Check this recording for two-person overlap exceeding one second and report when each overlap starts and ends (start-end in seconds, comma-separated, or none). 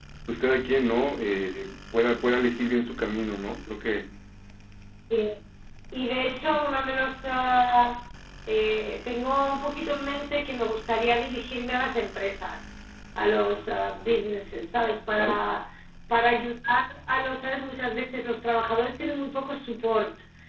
none